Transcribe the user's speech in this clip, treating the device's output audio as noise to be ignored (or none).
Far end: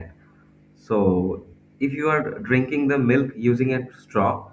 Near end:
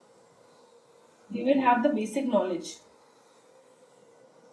They will have the basic knowledge.